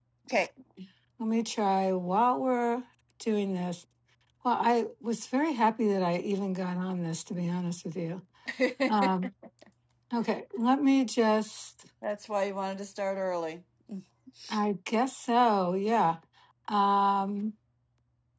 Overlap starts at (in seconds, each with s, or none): none